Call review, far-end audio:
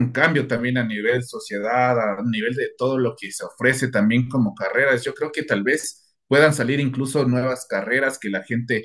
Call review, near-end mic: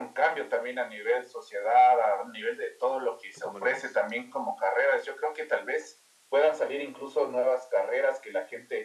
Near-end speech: present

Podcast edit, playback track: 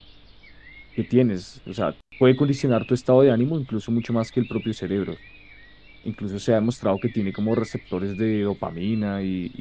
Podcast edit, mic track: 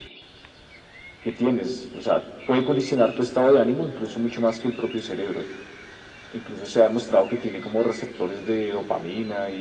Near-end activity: none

